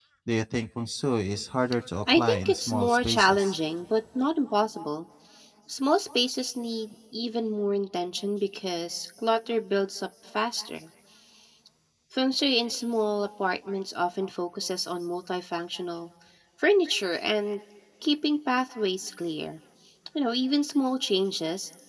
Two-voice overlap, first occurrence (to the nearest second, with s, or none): 2 s